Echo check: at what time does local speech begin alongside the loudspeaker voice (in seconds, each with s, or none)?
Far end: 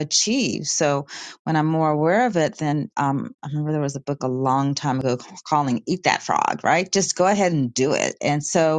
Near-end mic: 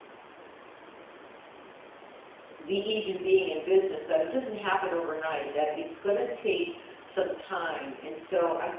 2.6 s